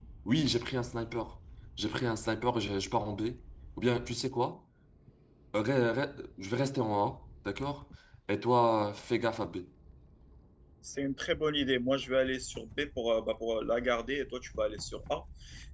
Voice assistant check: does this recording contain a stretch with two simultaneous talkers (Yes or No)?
No